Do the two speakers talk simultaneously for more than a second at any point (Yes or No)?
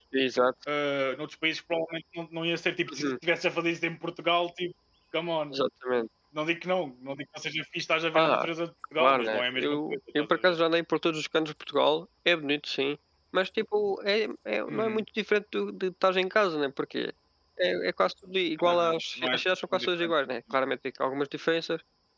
Yes